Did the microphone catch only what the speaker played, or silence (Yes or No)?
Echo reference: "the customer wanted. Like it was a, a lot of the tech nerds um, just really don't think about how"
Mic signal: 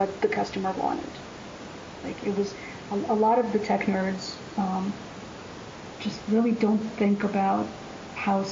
Yes